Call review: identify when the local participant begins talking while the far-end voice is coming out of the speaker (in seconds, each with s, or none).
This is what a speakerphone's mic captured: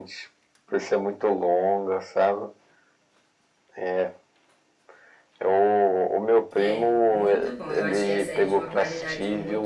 6.5 s